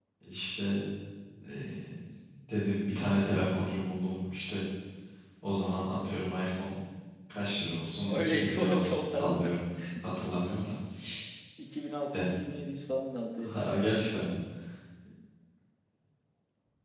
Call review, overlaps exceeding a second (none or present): present